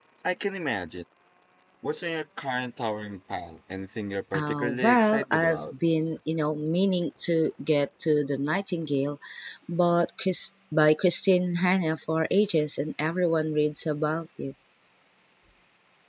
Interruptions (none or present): present